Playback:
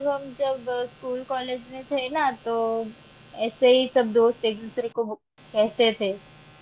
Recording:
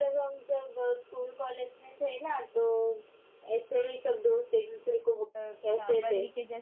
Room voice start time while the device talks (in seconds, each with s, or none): 5.3 s